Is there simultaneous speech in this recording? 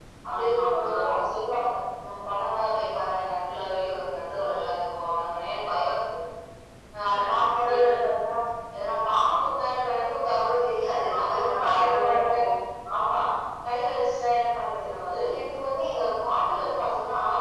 Yes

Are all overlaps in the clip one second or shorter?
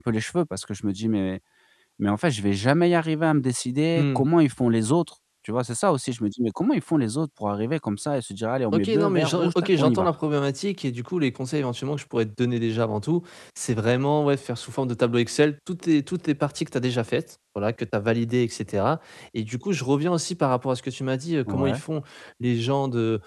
No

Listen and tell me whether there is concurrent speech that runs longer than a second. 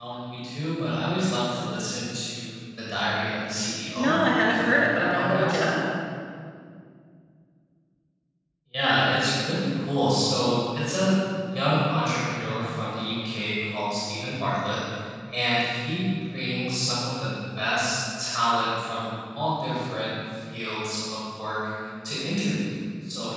Yes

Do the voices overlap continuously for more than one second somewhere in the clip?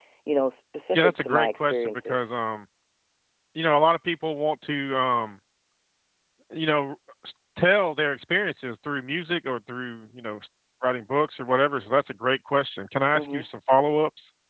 Yes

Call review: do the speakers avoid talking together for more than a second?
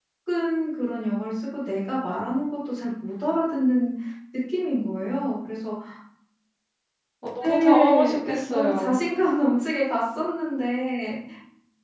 No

